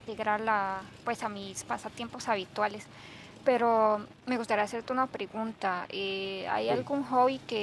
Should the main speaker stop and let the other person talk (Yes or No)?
No